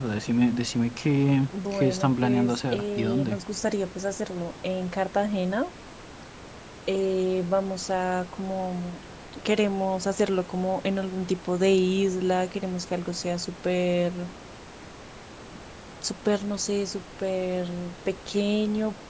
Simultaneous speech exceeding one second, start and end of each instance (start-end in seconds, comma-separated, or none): 1.7-3.4